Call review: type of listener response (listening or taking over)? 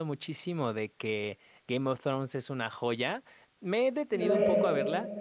listening